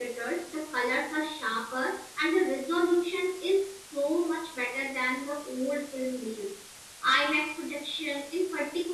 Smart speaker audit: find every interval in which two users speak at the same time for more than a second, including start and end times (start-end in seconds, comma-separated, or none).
none